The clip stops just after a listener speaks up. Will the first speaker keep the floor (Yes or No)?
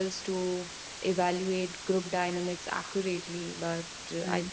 Yes